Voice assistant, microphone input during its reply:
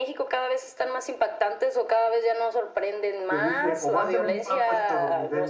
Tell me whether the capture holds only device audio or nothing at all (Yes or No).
No